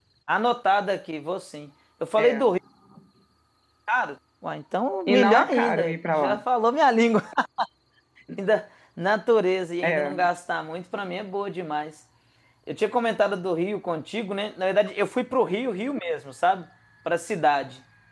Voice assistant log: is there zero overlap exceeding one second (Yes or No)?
No